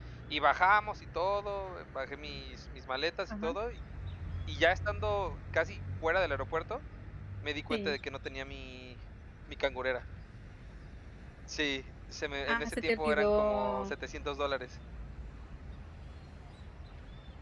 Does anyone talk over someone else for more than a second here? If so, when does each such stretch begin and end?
12.5-13.9

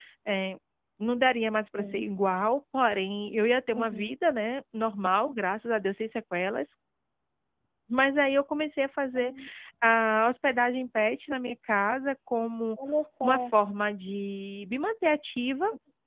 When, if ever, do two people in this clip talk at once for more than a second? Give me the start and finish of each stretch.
none

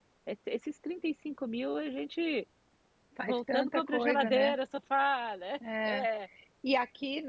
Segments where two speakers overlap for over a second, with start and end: 3.2-4.5

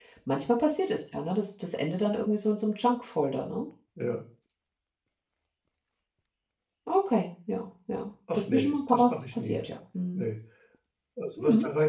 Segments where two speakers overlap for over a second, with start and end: 8.3-9.6

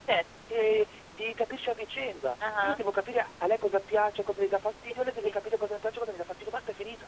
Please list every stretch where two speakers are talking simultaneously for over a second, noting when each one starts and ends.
none

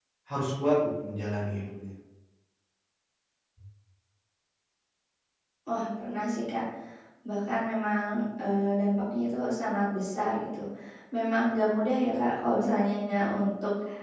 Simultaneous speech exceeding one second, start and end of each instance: none

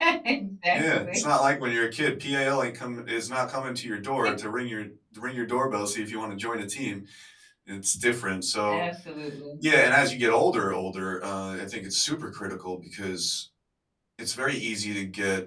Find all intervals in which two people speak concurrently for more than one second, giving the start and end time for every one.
none

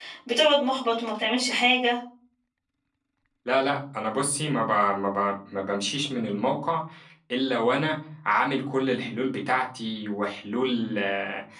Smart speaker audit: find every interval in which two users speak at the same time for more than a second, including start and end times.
none

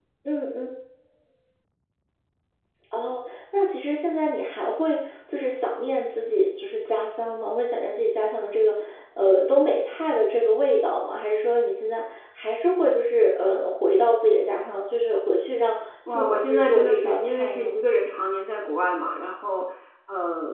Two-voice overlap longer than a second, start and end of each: 16.1-17.7

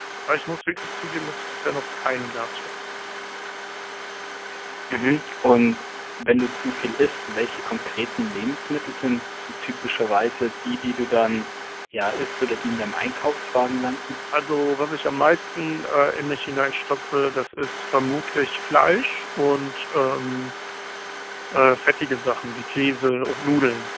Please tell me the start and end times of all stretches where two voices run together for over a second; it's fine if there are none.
none

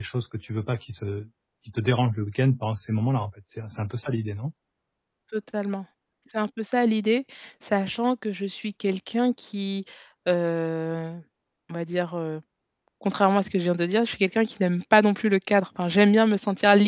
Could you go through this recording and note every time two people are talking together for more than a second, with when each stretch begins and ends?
none

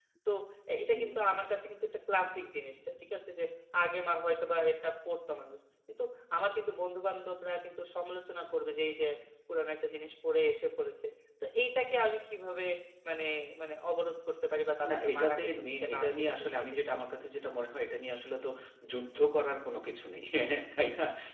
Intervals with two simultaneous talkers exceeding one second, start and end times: 14.9-17.0

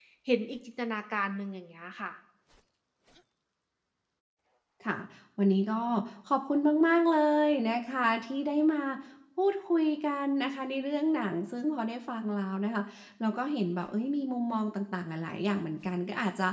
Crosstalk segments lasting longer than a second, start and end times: none

